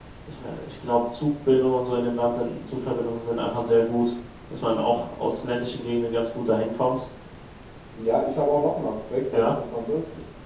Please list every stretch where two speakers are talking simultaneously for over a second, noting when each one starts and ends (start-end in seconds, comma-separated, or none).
none